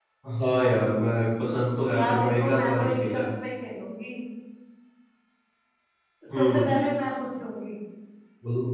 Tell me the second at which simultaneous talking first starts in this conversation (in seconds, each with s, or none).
1.9 s